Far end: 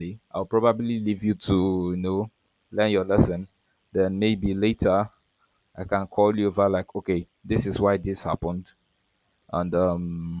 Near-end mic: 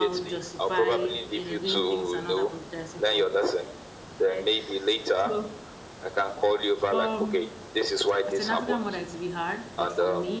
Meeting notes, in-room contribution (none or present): present